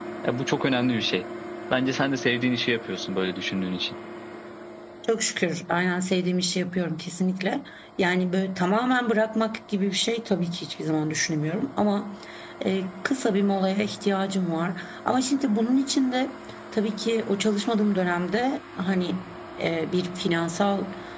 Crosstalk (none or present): none